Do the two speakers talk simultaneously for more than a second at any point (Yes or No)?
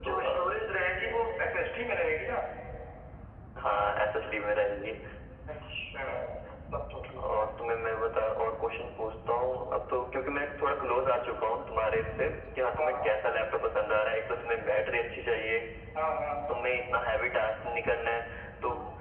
Yes